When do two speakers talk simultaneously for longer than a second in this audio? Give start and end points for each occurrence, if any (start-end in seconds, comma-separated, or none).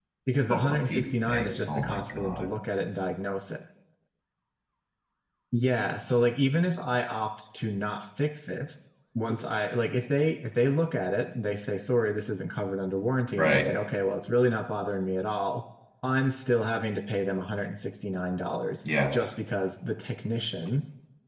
0.5-2.5